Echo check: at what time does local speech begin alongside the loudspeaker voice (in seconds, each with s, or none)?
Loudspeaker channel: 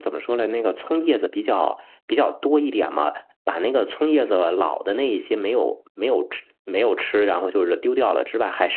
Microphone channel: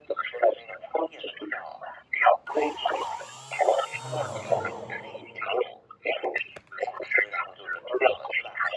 3.9 s